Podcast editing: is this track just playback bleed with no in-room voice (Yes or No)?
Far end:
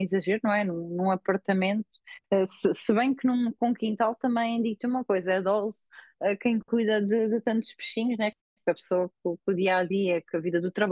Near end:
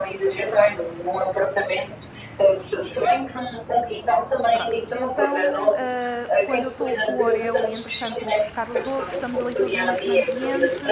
No